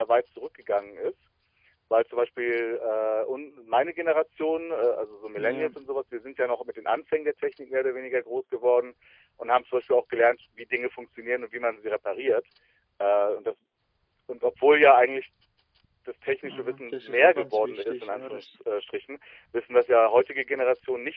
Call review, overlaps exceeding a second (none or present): present